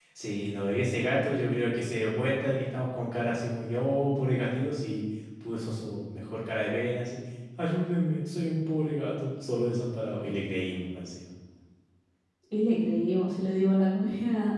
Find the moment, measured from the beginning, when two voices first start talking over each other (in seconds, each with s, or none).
none